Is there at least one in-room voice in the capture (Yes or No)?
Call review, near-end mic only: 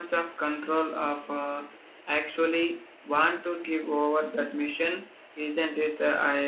No